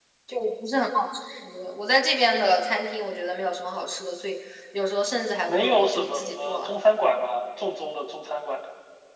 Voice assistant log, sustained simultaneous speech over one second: present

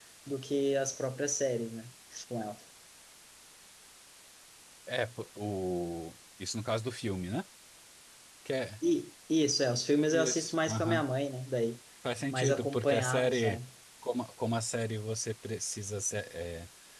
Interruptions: present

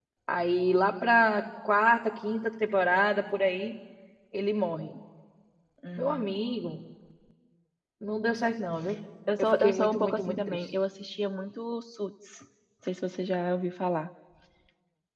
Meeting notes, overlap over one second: present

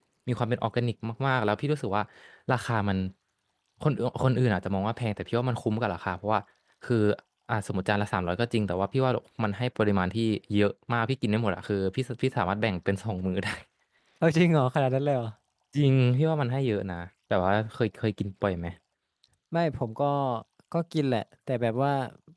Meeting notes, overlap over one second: none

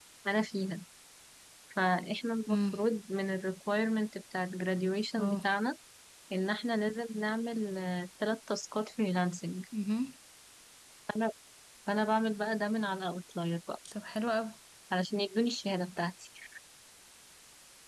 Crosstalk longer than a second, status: none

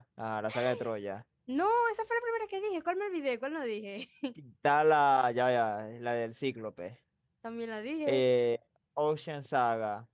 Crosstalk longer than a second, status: none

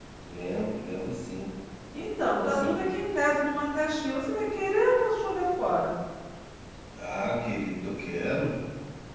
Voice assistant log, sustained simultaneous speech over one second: none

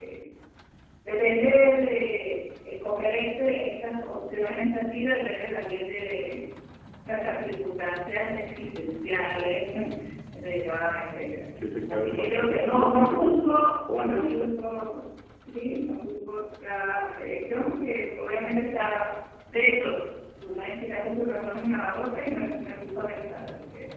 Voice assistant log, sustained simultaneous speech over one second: present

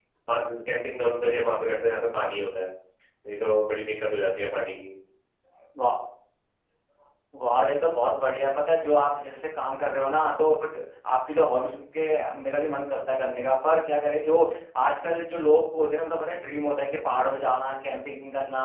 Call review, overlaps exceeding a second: none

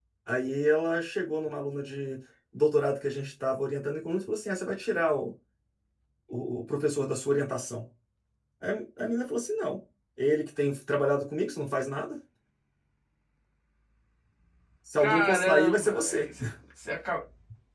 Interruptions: present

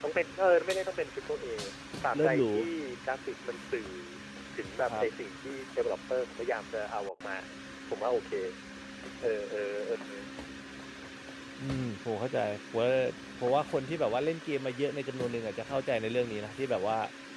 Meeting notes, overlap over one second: none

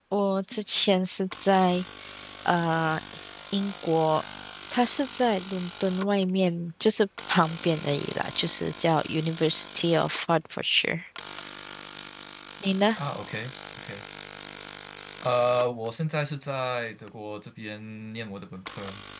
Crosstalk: none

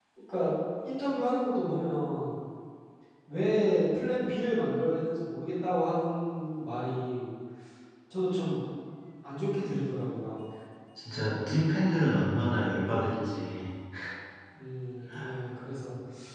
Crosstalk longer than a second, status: none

